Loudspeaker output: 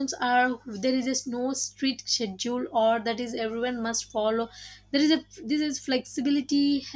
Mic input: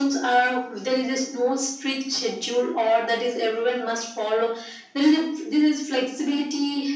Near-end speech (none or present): none